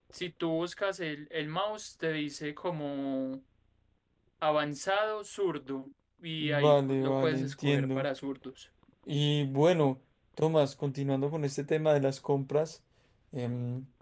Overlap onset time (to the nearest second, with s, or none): 6 s